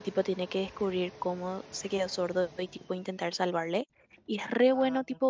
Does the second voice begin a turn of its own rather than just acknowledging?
No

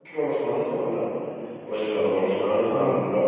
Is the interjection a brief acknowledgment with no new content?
Yes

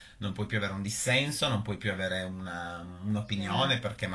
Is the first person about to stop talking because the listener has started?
No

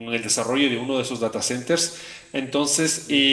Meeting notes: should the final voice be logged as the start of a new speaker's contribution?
No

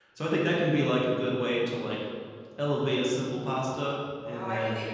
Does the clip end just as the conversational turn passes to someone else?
Yes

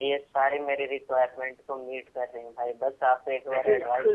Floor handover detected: Yes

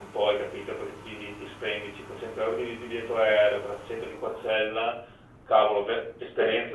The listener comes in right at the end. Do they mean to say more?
No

